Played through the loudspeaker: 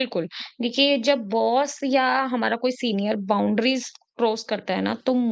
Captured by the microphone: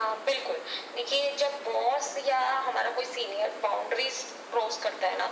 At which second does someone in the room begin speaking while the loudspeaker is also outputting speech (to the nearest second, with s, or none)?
none